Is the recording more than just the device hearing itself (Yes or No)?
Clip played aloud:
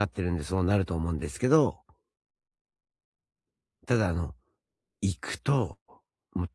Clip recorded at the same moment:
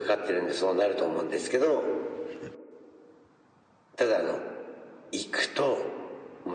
No